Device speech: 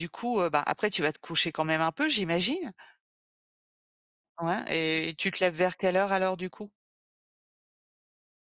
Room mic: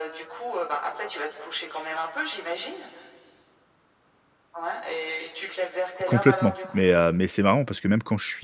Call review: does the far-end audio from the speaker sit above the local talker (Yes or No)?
No